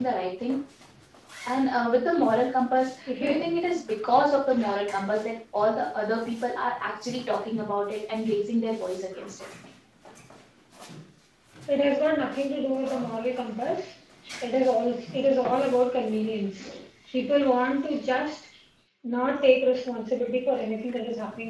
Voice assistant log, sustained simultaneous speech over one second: none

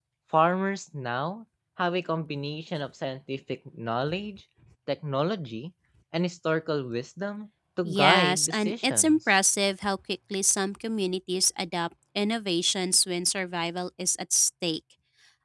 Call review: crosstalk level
present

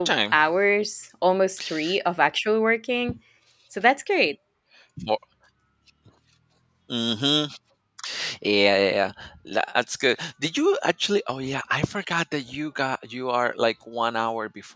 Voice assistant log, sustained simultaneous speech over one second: none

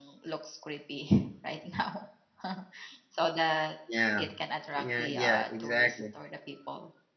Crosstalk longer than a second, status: present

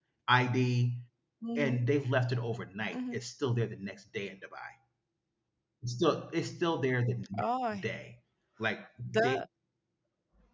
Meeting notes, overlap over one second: none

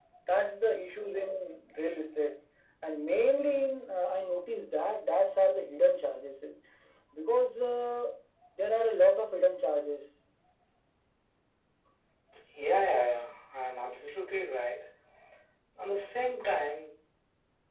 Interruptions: none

